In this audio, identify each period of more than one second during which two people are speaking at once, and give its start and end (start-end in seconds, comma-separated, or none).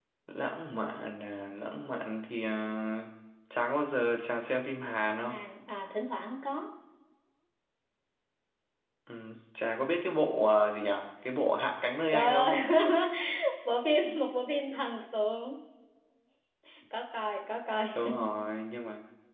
none